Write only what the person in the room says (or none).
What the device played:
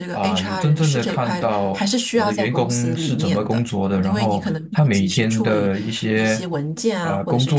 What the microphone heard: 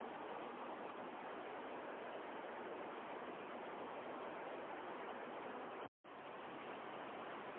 none